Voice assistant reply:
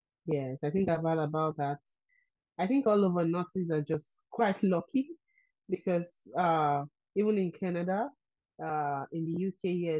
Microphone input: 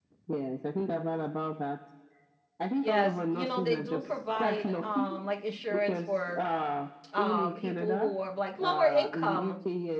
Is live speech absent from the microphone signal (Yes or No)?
No